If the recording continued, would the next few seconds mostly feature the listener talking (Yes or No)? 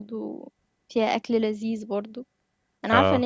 No